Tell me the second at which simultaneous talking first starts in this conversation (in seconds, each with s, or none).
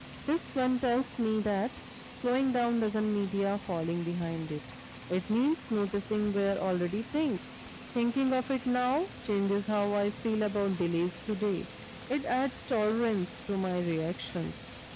none